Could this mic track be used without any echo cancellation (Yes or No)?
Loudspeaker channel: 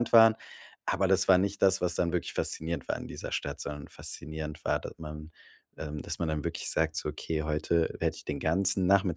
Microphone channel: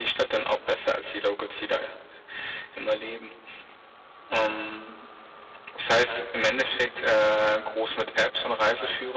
Yes